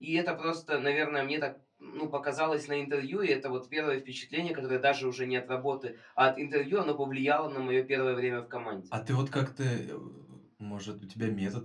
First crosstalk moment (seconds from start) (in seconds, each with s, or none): none